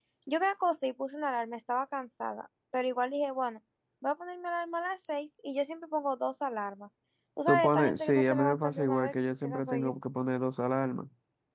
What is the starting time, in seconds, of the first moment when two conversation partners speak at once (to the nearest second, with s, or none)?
7 s